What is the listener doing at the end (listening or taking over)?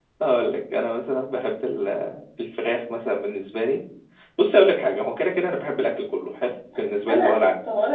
taking over